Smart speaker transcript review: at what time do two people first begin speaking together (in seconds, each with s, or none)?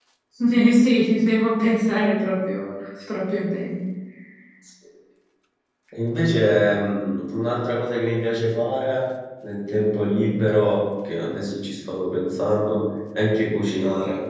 none